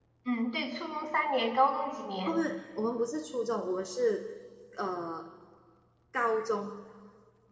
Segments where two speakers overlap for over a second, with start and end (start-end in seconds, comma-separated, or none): none